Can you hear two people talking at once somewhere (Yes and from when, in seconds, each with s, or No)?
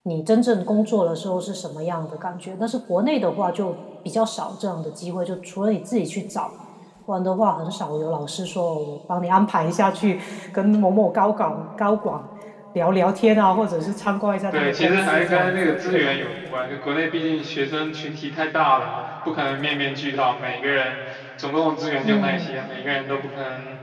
Yes, from 14.5 s